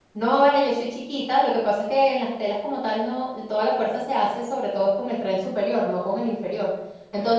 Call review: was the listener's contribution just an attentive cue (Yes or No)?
Yes